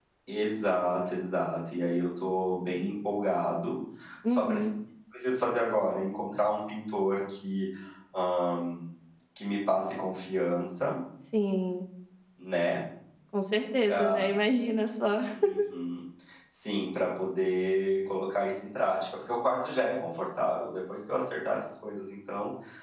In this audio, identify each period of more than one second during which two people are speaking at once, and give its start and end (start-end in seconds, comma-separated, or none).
none